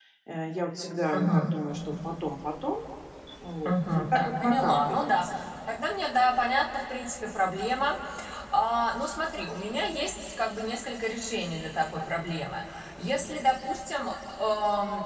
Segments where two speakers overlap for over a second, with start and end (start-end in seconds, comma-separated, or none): 3.6-5.2